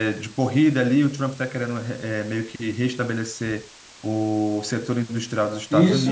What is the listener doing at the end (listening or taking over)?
taking over